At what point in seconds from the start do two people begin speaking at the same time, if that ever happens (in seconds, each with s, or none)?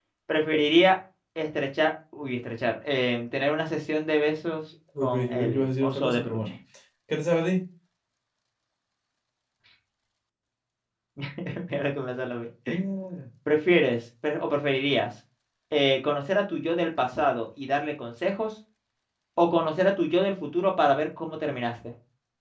5.0 s